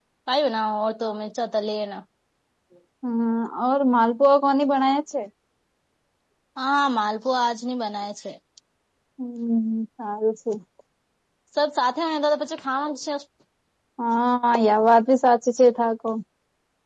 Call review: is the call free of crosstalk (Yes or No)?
Yes